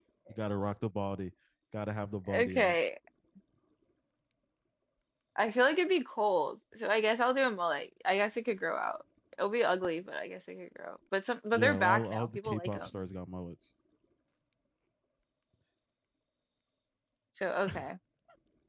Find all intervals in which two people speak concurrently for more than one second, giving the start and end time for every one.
11.5-12.9

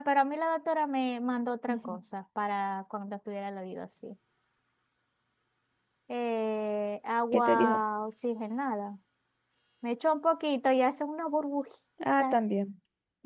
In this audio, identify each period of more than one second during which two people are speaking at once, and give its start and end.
none

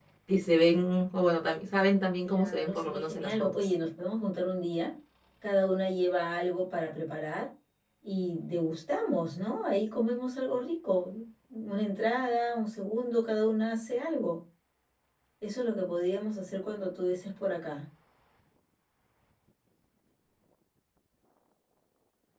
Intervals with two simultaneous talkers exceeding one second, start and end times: 2.2-3.5

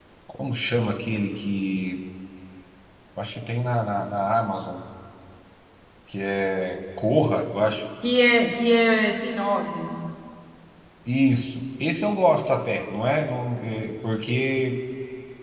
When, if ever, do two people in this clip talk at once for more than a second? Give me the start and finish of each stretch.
none

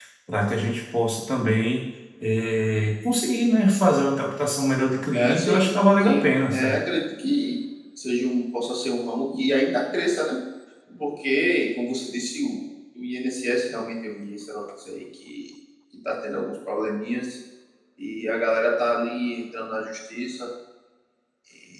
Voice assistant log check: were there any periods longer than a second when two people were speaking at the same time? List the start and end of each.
5.1-6.8

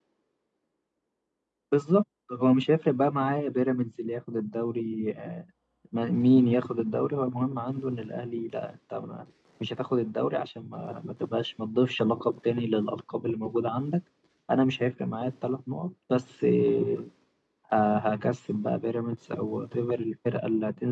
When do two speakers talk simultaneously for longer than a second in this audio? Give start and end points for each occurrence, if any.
none

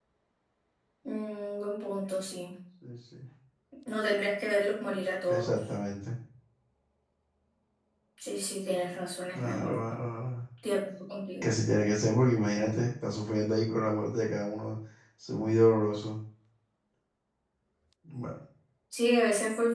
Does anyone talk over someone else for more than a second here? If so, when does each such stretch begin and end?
none

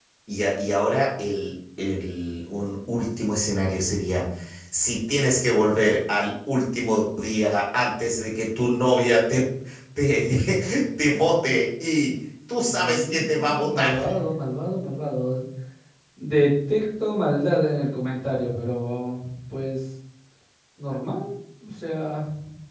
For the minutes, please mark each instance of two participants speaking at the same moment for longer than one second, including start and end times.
12.7-13.9

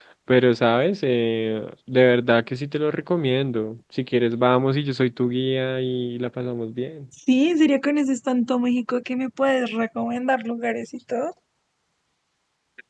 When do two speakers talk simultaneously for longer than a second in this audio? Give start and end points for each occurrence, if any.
none

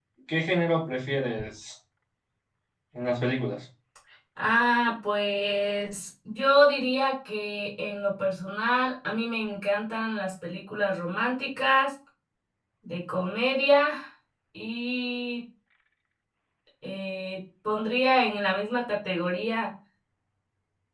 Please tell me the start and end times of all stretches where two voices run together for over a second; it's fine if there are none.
none

